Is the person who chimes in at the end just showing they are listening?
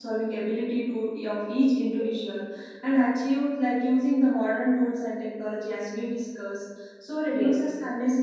Yes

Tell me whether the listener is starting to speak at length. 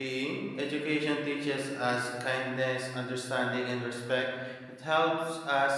No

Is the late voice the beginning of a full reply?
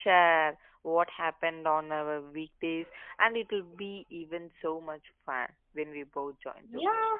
Yes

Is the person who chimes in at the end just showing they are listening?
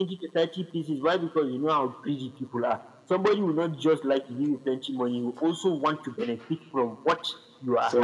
Yes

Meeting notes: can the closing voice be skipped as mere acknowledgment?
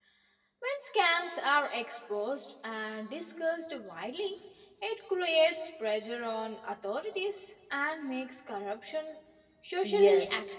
No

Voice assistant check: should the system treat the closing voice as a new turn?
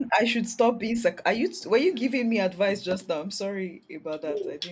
Yes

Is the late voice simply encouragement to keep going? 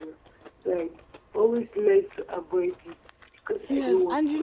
No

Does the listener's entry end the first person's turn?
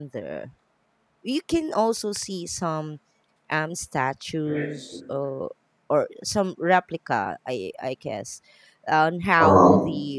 No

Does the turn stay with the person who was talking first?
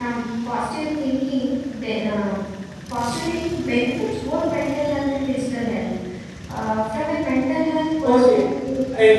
No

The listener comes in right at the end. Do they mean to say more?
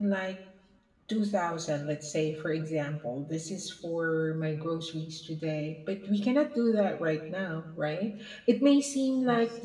No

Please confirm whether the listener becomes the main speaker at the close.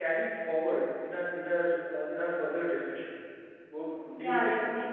Yes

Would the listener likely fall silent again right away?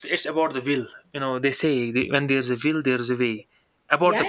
No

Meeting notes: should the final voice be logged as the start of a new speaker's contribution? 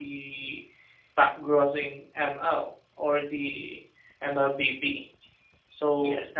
No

